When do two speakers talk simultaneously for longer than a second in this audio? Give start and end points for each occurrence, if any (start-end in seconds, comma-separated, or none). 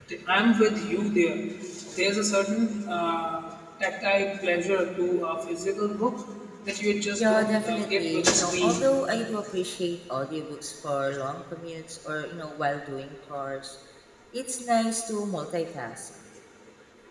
7.2-8.7